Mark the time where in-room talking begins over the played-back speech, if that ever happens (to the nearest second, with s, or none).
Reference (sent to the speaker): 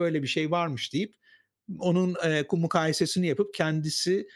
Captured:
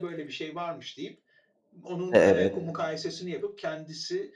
2 s